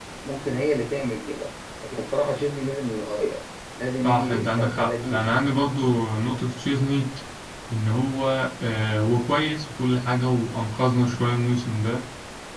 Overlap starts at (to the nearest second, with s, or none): 4 s